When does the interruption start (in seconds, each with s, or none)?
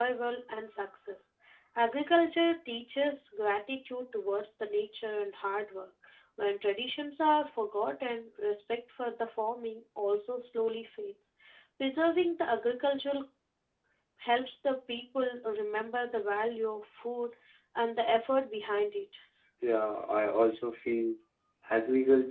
none